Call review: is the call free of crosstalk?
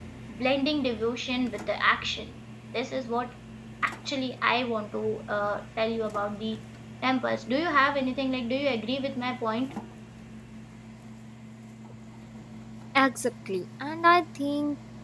Yes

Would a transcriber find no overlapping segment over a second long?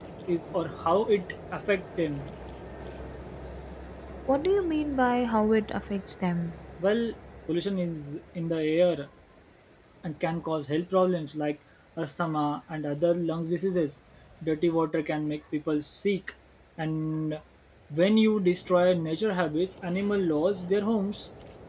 Yes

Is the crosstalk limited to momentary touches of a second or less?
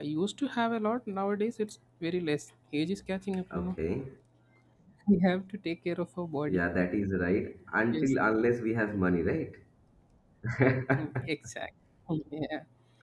Yes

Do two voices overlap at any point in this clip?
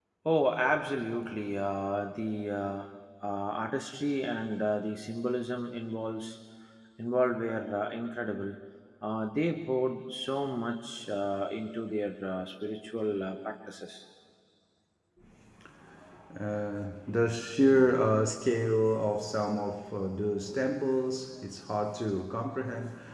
No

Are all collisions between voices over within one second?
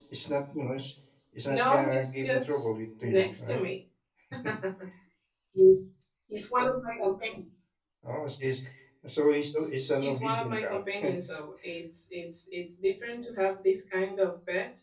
No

